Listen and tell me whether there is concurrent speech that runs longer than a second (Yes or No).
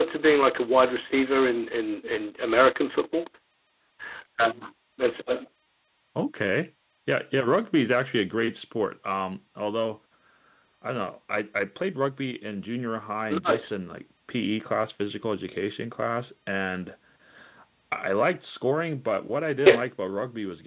No